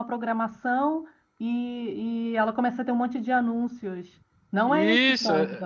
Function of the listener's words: taking over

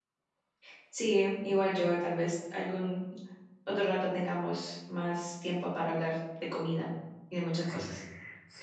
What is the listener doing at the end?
taking over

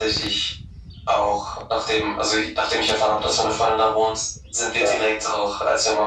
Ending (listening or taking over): listening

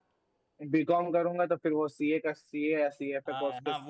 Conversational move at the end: taking over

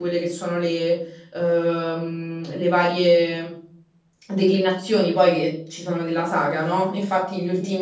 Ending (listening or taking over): listening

